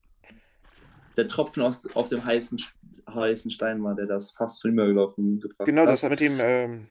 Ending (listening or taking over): taking over